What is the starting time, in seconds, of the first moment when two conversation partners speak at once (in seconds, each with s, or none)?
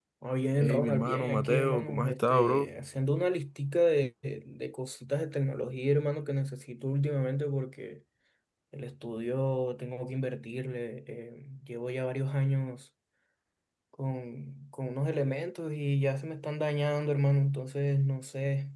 0.6 s